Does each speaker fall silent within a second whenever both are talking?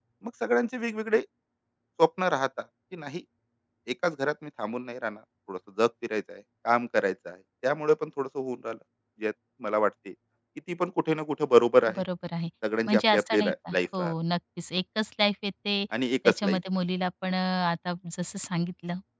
No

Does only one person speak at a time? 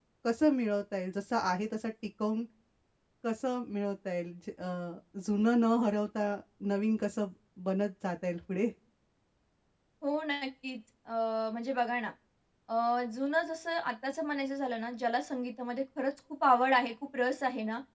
Yes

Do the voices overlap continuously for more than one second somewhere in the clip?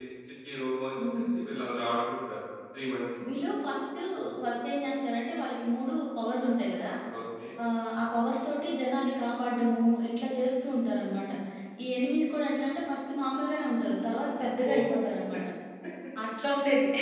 No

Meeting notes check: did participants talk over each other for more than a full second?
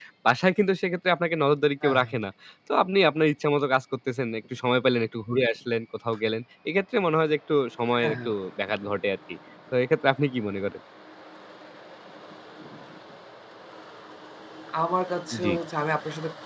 No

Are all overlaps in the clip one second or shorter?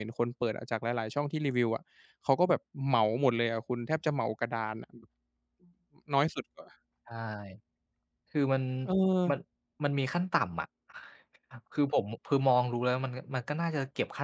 Yes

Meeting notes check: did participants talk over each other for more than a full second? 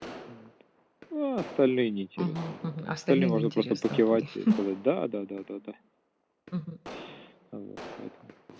Yes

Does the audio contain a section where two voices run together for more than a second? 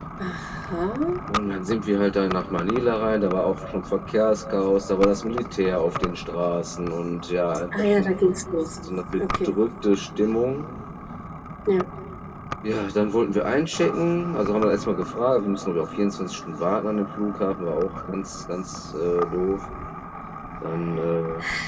No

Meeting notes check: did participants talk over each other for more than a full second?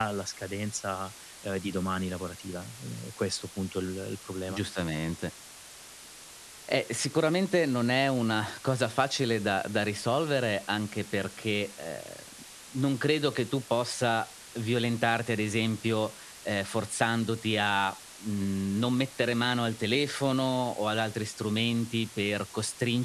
No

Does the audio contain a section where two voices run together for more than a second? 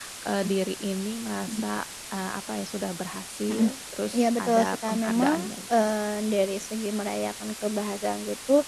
Yes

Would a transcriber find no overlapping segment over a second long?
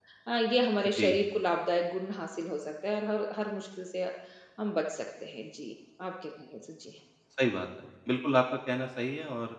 Yes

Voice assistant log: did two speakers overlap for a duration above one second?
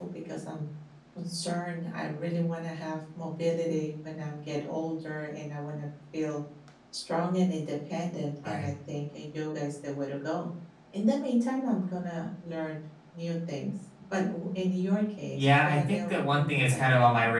Yes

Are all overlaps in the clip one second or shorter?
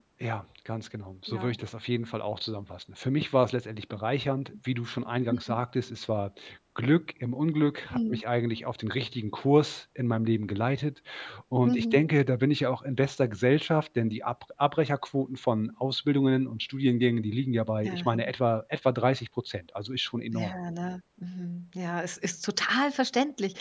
Yes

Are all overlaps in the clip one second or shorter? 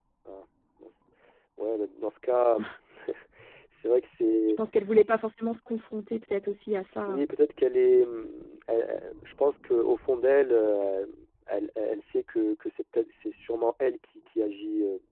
Yes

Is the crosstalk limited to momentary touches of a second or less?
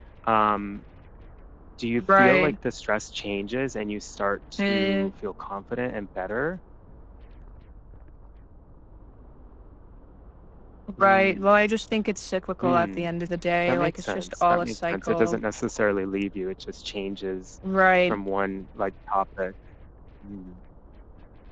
No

